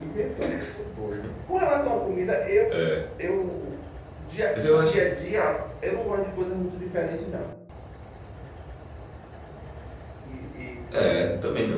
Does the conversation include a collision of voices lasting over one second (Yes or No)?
No